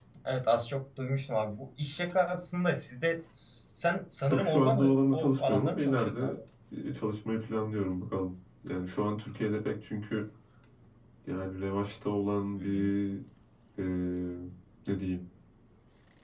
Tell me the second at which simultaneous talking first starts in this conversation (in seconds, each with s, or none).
4.3 s